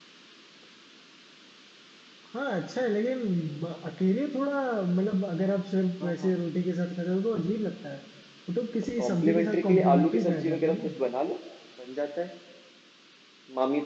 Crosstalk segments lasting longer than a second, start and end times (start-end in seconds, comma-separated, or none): 9.0-10.8